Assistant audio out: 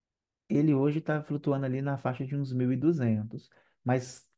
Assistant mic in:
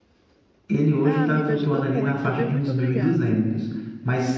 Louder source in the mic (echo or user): echo